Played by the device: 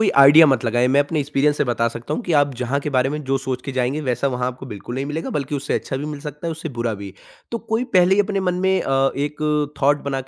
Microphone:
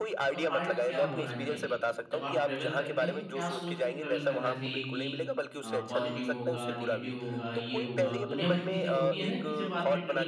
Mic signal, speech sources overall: both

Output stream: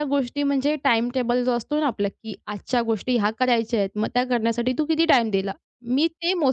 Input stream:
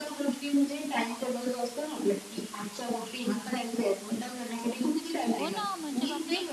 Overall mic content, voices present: both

